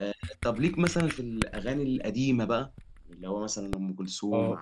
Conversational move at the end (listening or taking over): taking over